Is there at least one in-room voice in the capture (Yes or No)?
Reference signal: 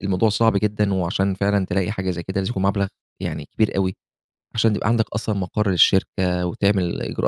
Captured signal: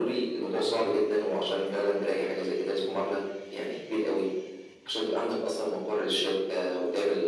No